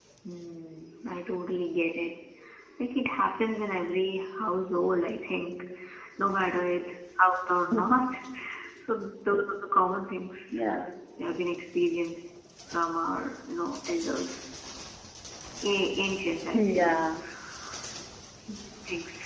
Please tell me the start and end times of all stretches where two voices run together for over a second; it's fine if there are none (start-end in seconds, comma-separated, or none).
none